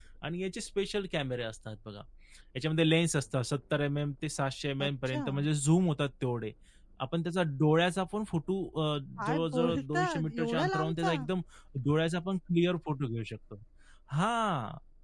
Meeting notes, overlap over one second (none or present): present